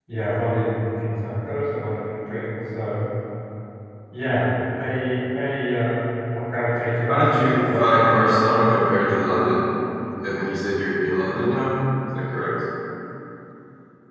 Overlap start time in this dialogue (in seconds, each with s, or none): 7.1 s